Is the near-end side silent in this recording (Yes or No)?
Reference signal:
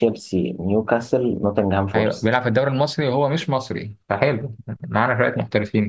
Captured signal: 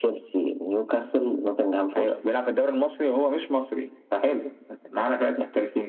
Yes